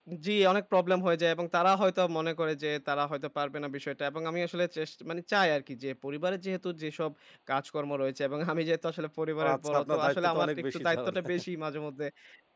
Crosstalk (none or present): present